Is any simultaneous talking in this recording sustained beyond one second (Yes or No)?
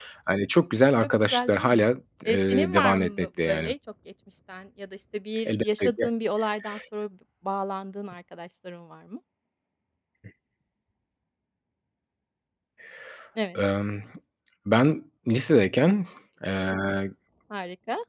Yes